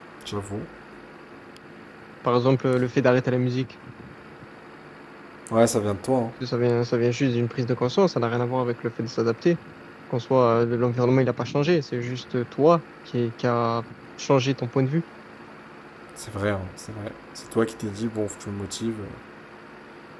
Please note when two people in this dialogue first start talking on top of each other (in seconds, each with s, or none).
none